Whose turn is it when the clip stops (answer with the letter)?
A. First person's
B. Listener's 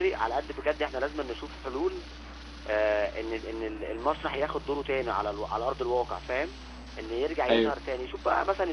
A